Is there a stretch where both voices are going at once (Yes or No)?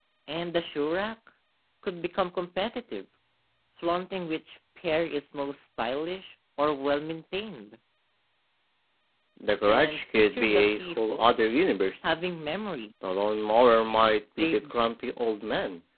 Yes